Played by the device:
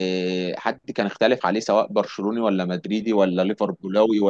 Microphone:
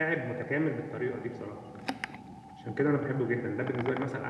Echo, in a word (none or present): none